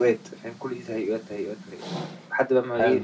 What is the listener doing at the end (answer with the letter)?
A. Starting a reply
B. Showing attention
B